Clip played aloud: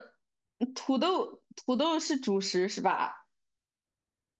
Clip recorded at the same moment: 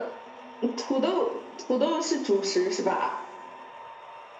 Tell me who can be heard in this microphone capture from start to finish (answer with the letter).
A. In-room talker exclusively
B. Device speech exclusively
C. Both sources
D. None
B